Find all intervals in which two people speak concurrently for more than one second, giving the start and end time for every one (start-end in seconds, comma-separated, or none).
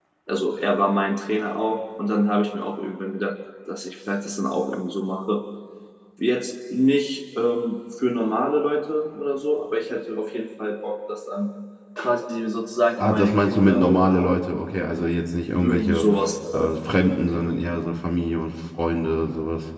13.0-14.3